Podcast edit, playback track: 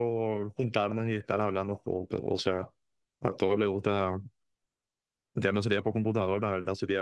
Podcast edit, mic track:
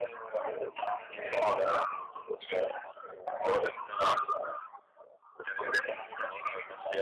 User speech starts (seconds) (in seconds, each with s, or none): none